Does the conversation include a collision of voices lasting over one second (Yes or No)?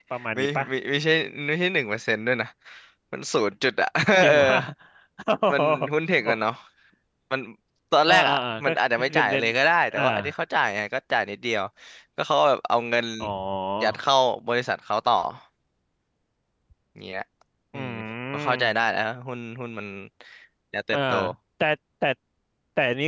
Yes